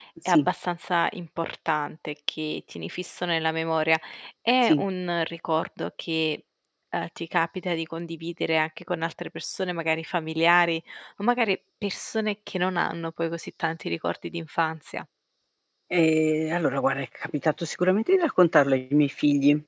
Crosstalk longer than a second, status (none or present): none